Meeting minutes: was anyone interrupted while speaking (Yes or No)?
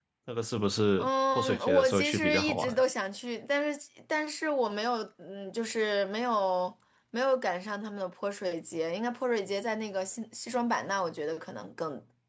Yes